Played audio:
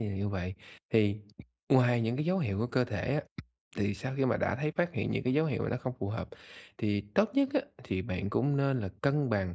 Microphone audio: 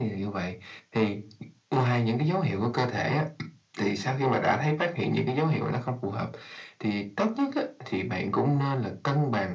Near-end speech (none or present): none